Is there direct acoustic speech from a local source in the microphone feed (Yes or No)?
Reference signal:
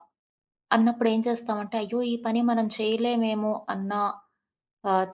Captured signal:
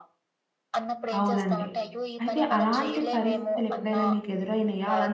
Yes